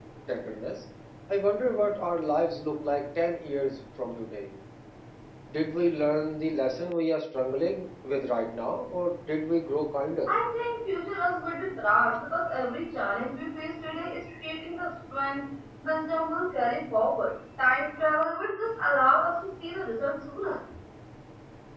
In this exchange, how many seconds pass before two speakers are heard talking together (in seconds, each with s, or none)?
none